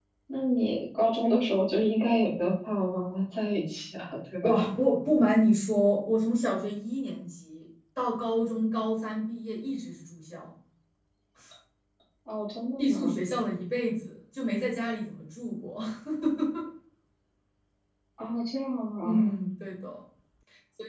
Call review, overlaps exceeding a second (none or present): none